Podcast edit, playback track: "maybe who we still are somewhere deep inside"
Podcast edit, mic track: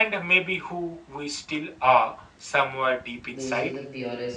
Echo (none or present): present